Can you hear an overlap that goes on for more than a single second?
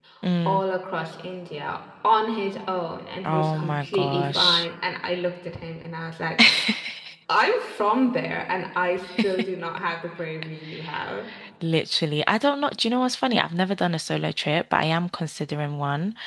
Yes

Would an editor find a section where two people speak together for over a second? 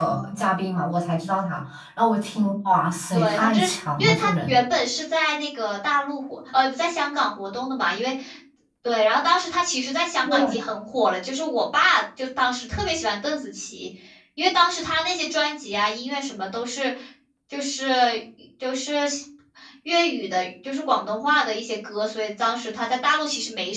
Yes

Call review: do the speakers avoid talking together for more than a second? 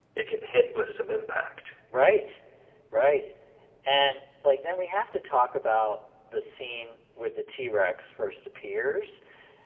Yes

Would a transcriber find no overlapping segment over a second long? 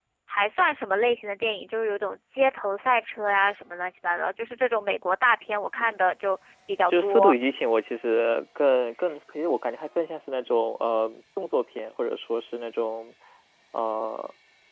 Yes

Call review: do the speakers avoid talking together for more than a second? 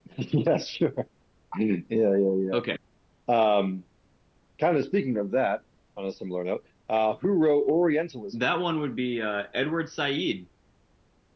Yes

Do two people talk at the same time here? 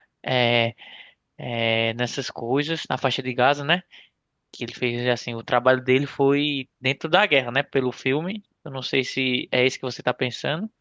No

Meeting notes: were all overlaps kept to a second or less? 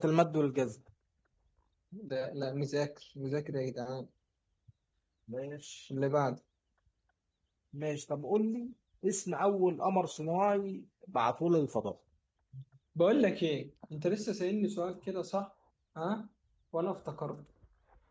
Yes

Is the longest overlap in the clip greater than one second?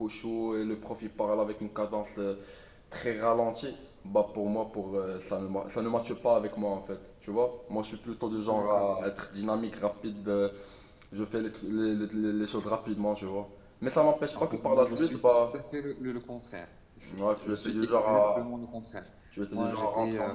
Yes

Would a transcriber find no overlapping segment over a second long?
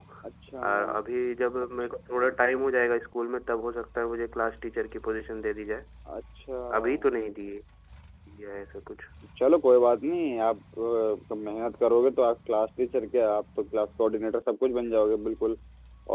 Yes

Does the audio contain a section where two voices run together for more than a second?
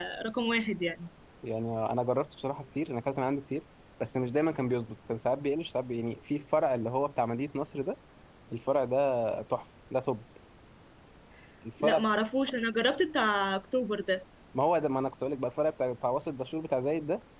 No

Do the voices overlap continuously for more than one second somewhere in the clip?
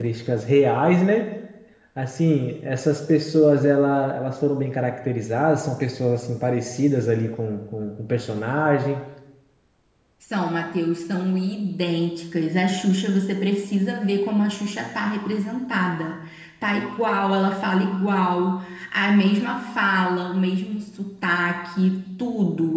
No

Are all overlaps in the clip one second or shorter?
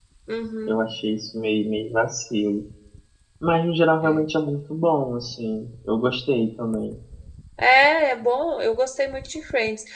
Yes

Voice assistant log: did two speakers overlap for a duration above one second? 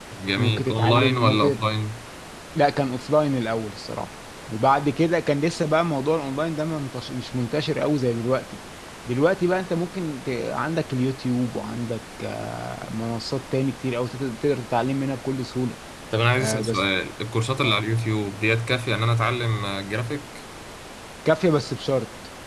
Yes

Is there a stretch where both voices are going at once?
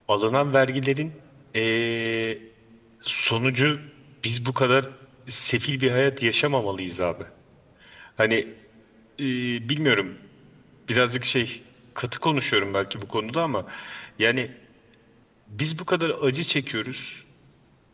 No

